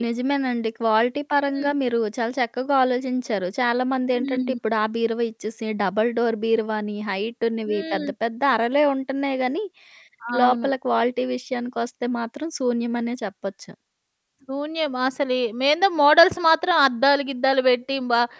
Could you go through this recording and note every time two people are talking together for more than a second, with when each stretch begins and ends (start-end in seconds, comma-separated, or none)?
none